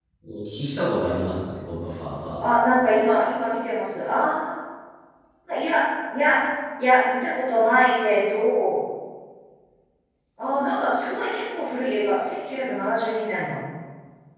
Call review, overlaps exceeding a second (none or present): none